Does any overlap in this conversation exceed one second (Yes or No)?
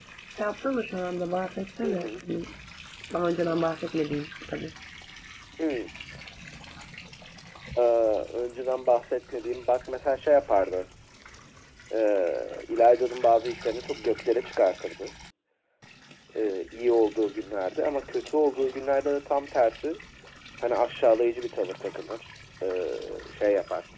No